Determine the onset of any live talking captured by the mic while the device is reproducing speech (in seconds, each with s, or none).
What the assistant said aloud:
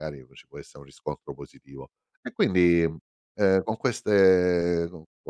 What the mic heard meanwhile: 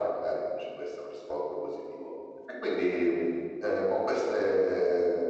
none